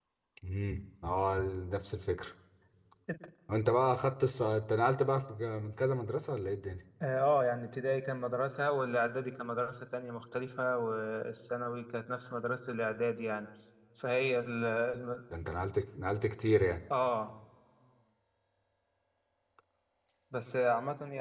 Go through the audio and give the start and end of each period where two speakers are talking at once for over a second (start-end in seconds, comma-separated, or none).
none